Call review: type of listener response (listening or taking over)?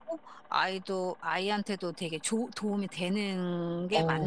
taking over